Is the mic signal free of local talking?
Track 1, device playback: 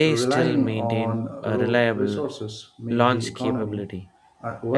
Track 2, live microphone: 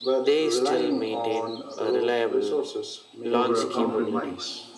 No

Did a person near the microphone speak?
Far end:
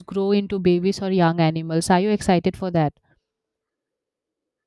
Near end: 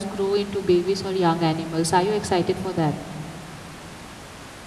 No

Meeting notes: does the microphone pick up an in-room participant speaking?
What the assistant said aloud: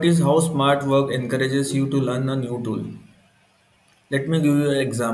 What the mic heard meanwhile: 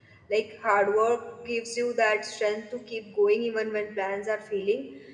Yes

